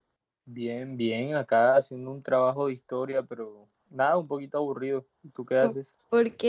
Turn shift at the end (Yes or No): Yes